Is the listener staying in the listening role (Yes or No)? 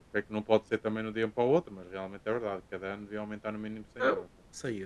No